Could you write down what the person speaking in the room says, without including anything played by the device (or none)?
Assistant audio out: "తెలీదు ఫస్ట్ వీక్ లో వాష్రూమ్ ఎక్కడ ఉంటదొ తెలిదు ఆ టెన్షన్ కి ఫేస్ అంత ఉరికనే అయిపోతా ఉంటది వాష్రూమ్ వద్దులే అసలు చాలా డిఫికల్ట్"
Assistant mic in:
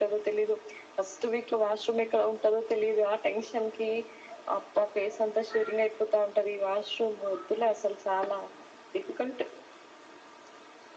none